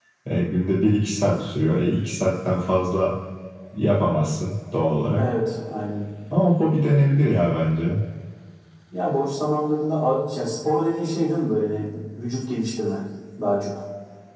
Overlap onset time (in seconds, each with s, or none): none